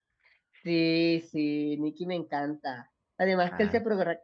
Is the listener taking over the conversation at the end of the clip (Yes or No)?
No